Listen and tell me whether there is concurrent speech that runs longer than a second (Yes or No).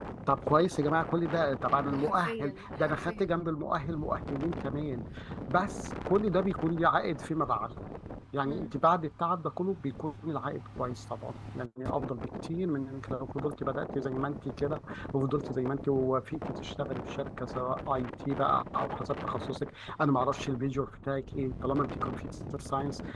Yes